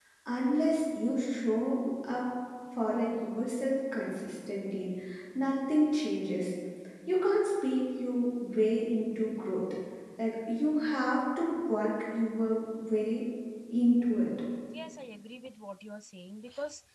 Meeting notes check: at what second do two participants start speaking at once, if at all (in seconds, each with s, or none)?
none